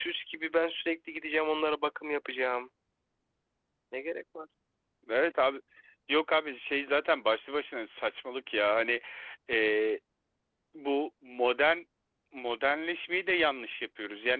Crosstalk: none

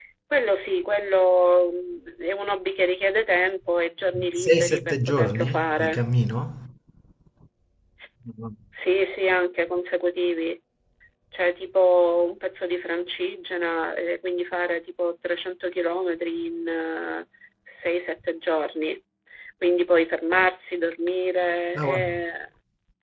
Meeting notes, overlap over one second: present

